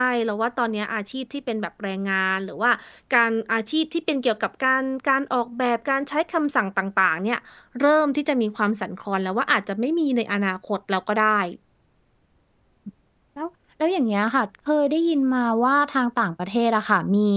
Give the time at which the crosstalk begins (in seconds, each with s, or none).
none